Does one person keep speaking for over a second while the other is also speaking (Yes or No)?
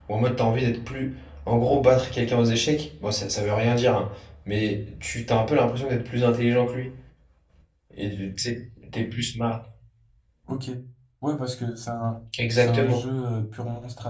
No